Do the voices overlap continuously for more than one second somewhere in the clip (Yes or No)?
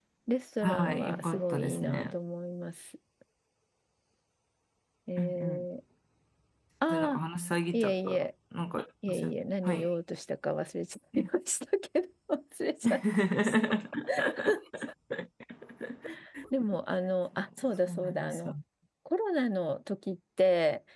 Yes